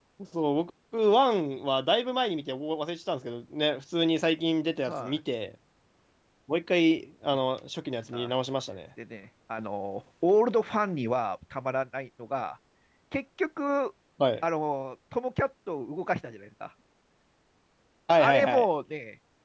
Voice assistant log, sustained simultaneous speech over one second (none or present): none